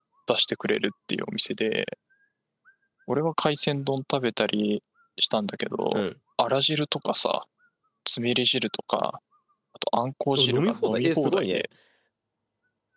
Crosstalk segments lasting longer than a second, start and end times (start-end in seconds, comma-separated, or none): 10.4-11.6